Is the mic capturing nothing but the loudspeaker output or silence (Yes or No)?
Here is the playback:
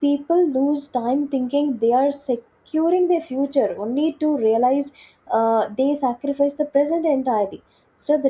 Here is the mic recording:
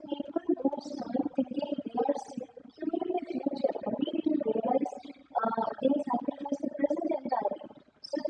Yes